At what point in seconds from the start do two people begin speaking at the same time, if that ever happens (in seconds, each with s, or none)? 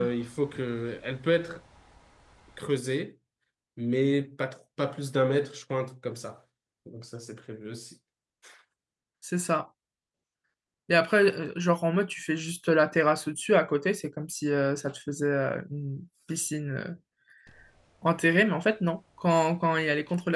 none